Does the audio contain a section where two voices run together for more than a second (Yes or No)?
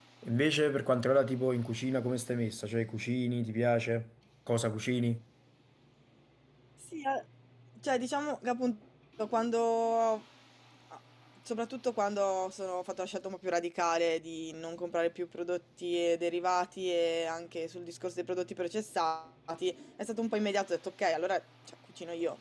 No